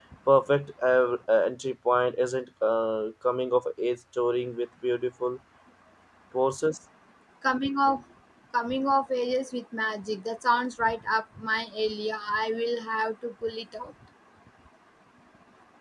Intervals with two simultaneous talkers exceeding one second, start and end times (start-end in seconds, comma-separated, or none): none